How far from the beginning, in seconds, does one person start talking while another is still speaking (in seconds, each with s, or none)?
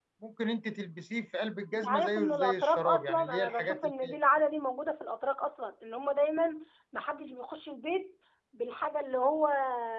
1.7 s